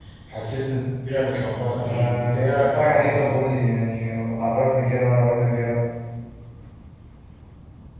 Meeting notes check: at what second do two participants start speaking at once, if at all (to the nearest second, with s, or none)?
2 s